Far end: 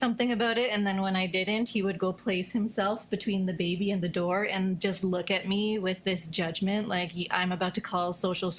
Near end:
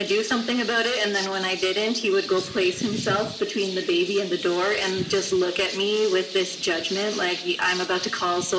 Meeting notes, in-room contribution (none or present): none